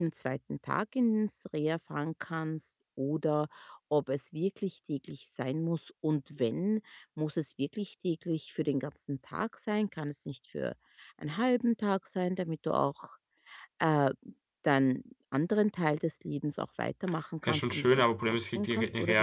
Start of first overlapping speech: 17 s

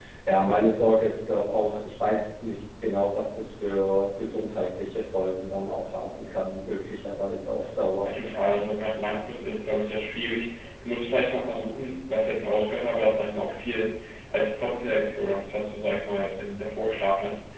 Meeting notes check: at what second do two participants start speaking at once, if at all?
none

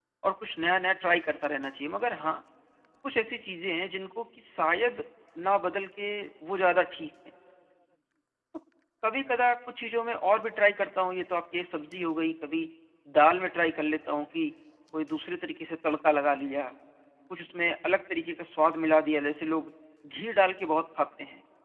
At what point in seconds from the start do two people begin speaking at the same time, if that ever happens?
none

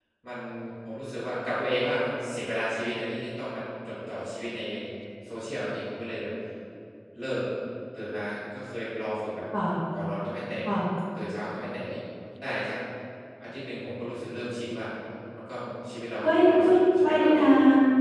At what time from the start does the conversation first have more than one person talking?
16 s

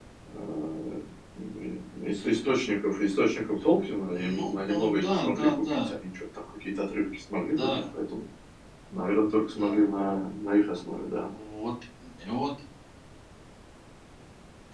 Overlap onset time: 4 s

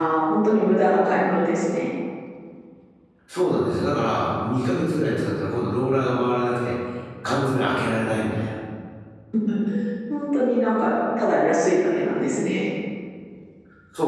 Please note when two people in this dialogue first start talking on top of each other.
none

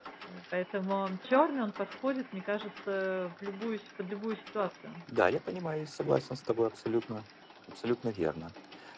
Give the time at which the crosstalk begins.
none

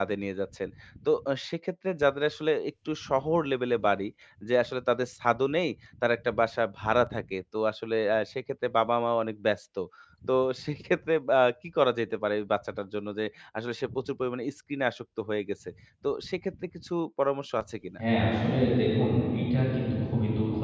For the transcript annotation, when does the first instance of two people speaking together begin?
none

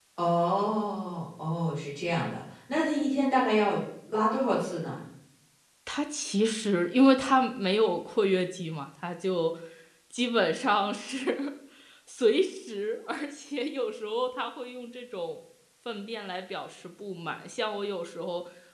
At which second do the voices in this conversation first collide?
none

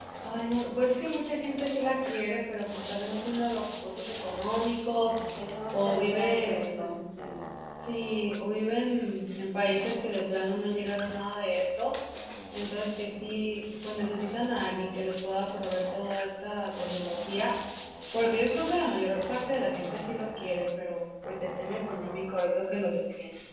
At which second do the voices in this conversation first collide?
6 s

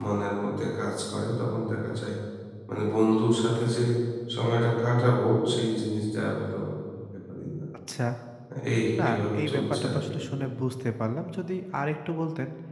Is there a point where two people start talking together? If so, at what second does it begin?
9 s

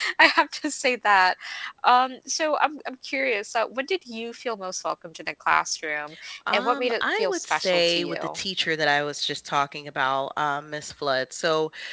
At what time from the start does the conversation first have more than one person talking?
7 s

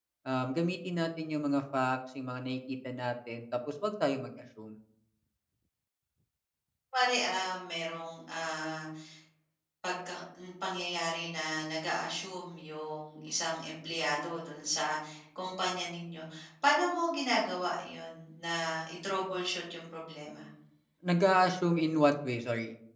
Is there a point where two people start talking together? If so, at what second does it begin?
none

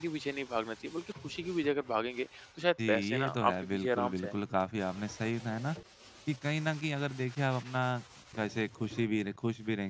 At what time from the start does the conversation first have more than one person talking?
3 s

